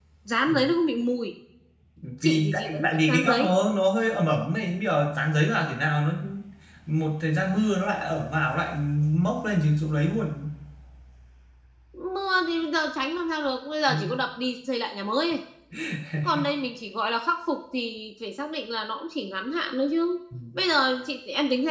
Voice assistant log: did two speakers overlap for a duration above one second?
Yes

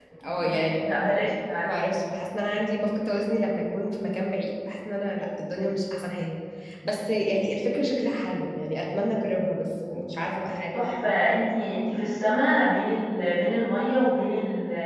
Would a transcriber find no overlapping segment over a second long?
Yes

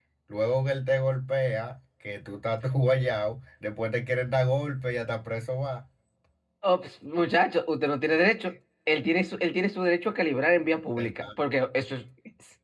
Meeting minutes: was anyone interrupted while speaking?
No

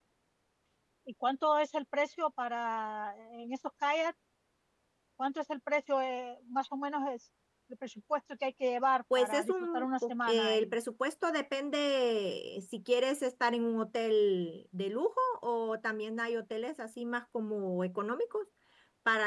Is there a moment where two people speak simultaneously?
Yes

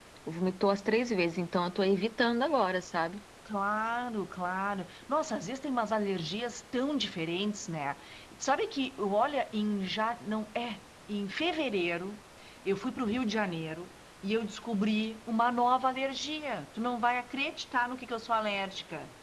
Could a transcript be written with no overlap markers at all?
Yes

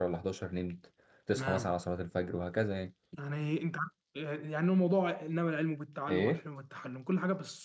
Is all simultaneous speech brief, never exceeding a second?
Yes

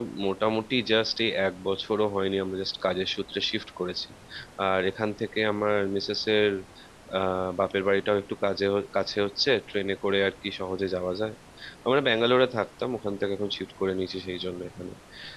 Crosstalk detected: No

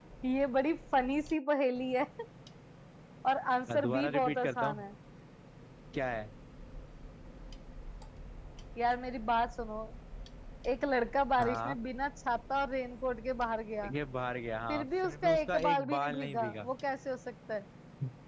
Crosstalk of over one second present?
Yes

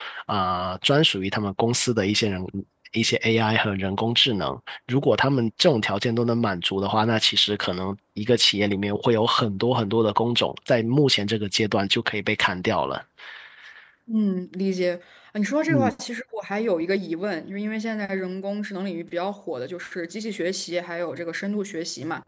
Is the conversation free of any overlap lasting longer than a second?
Yes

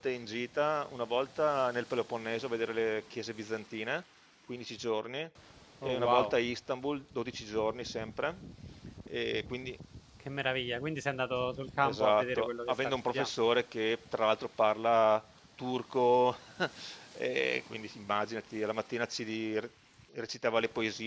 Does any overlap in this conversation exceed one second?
Yes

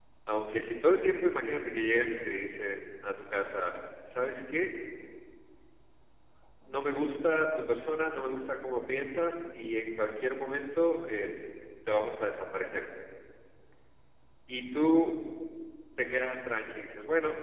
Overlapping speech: No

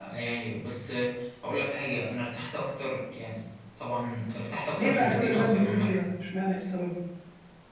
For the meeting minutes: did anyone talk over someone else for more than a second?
Yes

